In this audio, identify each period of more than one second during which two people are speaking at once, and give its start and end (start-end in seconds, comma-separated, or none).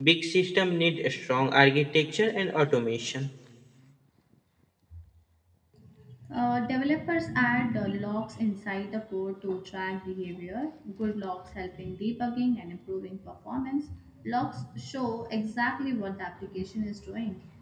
none